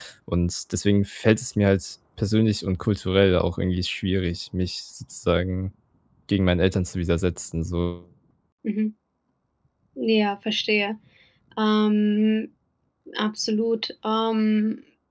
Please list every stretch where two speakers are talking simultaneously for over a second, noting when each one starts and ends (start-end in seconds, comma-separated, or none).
none